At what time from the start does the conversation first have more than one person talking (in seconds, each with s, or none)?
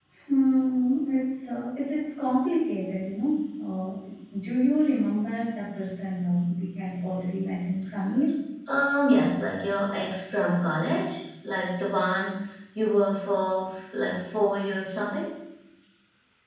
none